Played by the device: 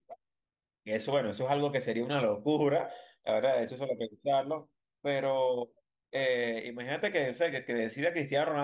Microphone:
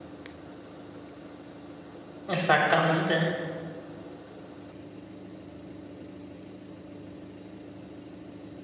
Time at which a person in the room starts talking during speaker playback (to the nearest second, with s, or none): 2 s